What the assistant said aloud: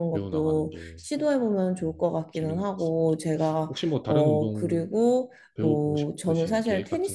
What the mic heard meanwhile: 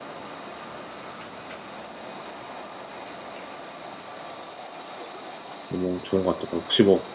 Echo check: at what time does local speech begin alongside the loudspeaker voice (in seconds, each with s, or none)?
5.7 s